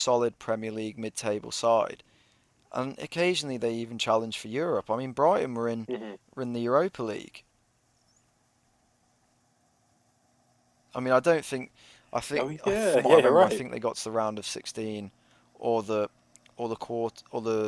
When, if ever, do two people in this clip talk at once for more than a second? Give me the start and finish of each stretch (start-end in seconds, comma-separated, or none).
12.4-13.6